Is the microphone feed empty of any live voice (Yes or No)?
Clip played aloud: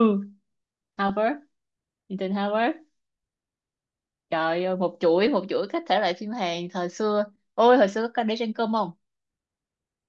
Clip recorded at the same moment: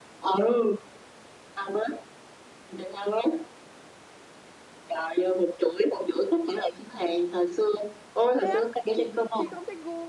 No